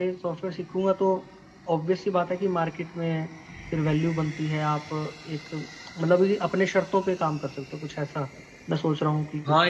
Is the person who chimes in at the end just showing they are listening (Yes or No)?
No